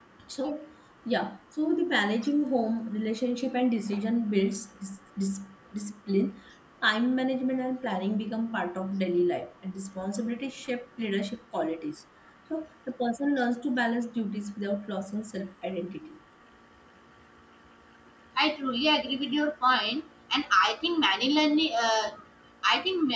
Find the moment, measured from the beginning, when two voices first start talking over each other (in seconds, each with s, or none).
none